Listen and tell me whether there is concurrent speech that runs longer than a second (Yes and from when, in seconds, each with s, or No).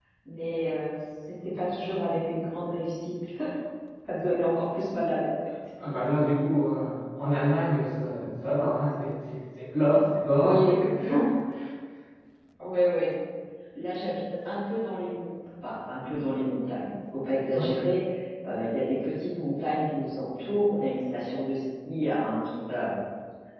No